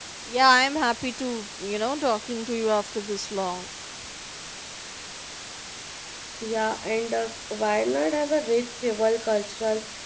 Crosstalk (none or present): none